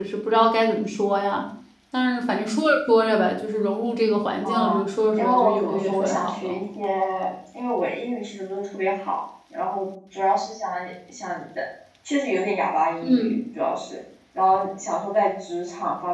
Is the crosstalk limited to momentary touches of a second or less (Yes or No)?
No